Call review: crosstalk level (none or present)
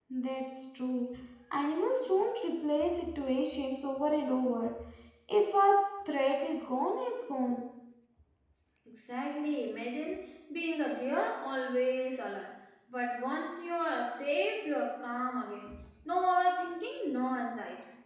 none